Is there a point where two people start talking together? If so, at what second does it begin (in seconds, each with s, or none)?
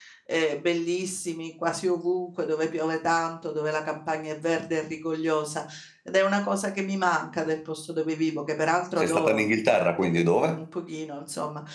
9.0 s